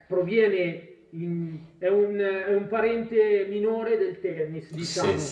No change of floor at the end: No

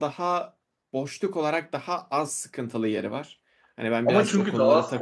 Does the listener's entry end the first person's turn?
Yes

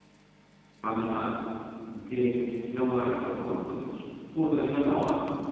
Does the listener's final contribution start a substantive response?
No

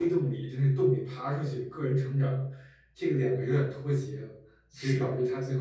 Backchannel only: Yes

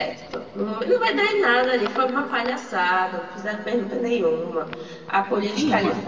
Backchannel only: Yes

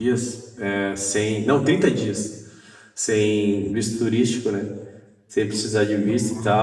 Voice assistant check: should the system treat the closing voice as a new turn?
No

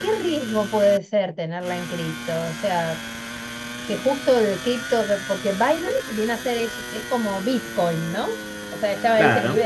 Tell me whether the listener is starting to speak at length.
No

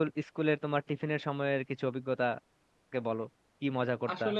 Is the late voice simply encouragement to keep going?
No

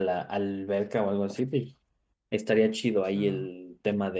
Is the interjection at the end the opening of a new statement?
No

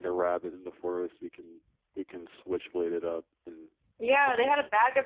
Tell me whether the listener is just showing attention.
No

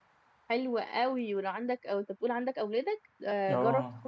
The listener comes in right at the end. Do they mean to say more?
No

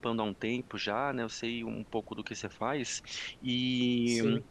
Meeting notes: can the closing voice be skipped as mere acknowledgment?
Yes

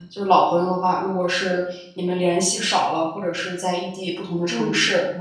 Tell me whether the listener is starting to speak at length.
No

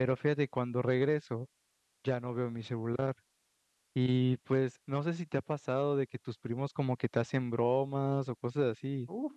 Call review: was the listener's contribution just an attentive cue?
No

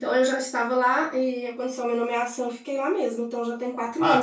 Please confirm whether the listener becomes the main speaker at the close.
Yes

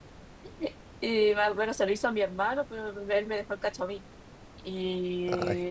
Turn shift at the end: No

